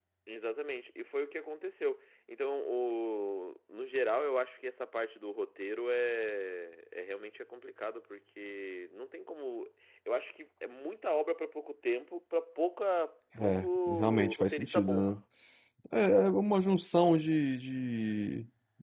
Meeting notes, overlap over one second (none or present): present